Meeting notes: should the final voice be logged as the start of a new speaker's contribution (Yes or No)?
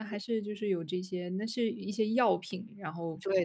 Yes